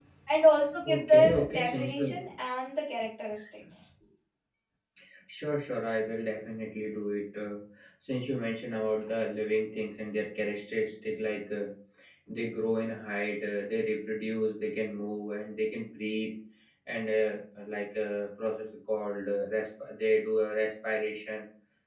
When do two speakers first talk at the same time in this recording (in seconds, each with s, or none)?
0.8 s